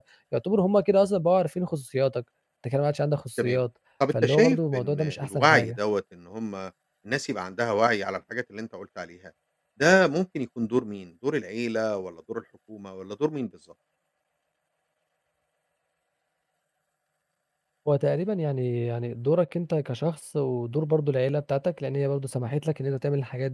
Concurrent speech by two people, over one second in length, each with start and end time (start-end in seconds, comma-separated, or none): 4.2-5.8